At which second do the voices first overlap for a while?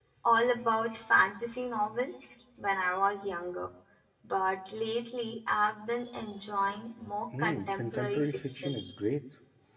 7.3 s

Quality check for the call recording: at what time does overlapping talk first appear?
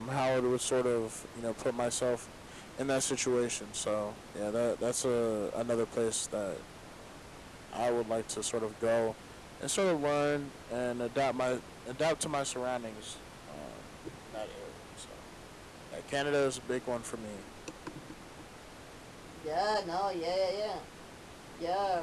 none

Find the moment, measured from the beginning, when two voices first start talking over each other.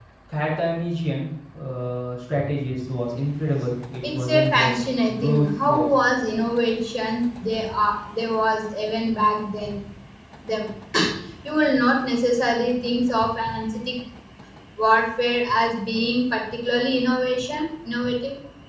4.0 s

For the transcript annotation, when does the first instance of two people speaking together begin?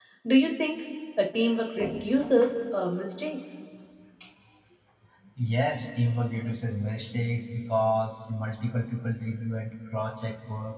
none

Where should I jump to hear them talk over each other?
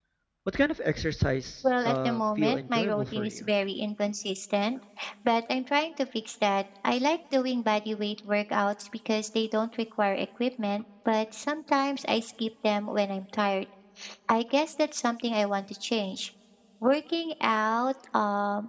1.6 s

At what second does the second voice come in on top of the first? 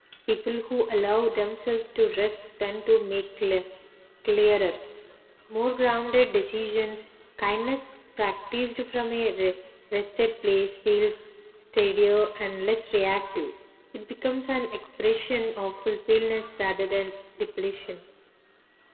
none

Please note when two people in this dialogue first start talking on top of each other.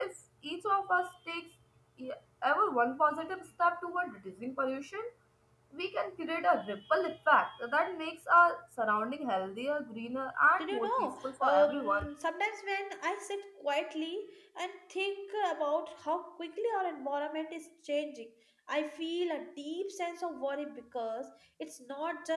10.6 s

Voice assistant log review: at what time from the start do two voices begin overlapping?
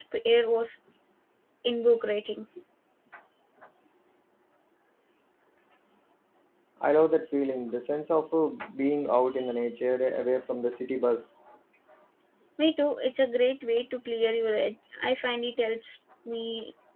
none

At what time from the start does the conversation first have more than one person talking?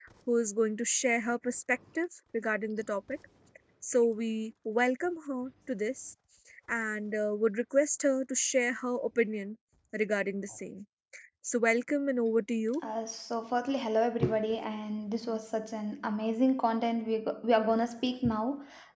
none

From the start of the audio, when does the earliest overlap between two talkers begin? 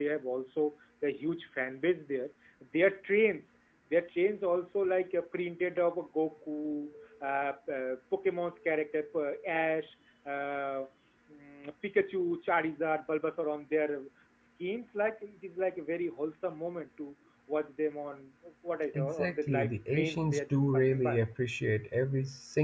18.9 s

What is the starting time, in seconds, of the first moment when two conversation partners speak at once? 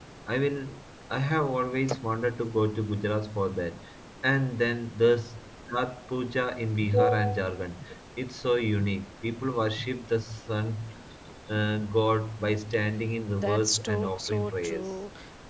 13.3 s

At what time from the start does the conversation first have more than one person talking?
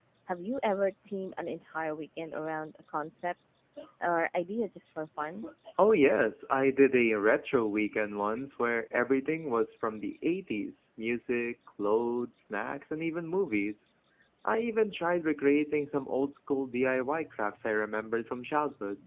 none

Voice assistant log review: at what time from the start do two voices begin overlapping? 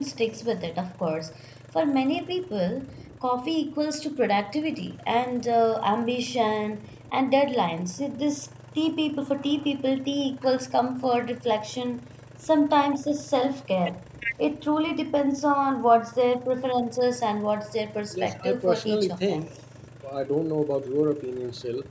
18.1 s

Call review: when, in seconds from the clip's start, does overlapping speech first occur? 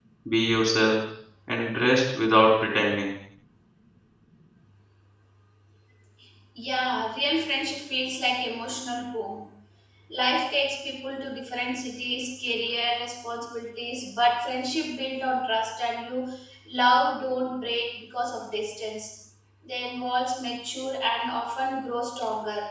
none

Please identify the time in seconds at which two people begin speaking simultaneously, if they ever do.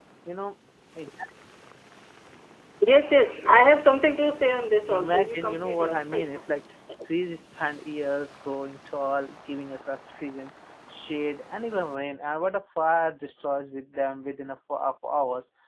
4.9 s

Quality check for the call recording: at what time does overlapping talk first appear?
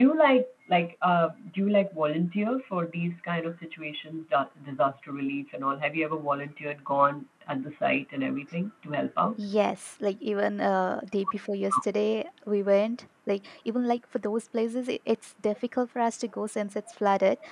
none

